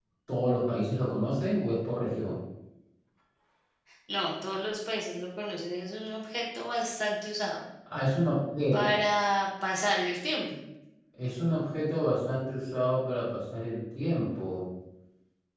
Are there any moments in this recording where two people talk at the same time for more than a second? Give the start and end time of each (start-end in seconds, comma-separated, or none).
none